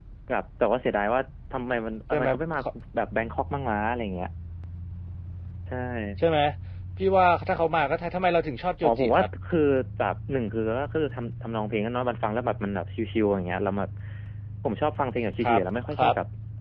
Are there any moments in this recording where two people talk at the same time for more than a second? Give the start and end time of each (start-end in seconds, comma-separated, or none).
none